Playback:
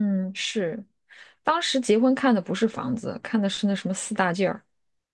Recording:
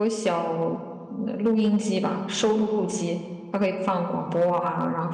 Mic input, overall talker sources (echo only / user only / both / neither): user only